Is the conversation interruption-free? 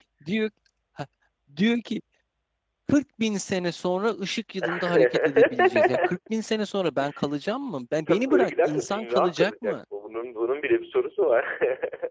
No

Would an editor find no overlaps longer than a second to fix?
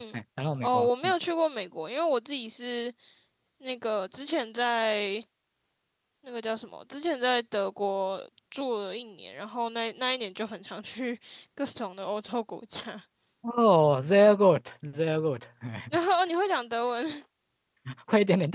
Yes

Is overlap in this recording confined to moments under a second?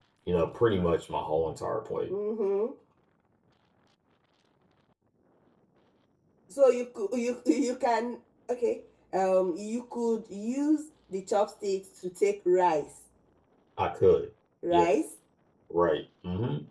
Yes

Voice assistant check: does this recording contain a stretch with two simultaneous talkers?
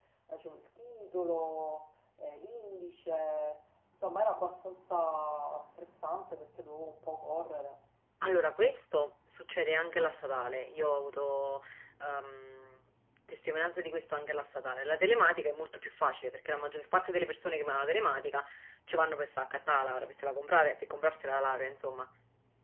No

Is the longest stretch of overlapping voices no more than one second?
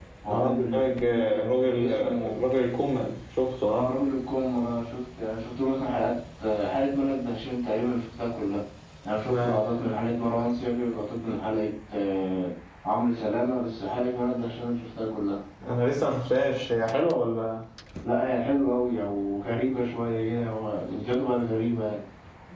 No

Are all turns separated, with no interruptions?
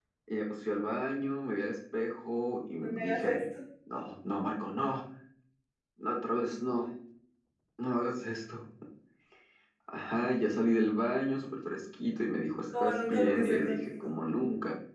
No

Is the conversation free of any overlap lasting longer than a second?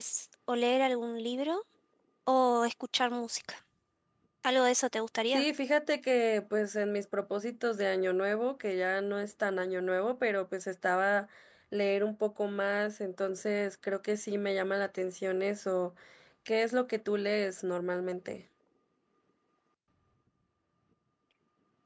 Yes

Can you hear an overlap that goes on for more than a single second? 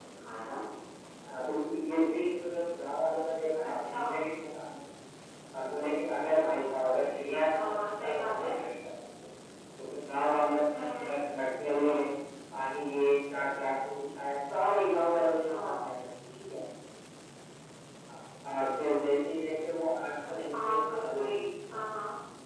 Yes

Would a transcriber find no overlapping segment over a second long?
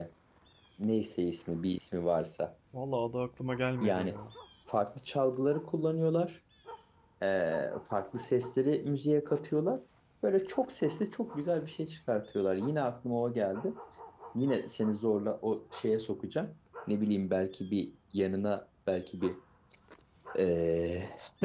Yes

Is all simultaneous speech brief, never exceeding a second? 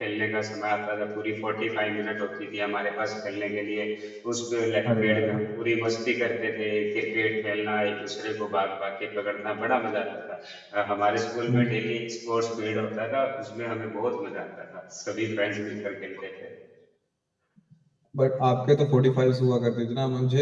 Yes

